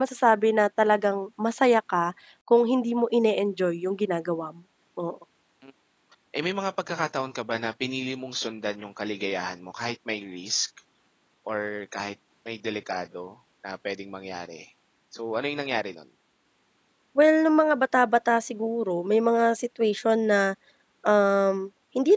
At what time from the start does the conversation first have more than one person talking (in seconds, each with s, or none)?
none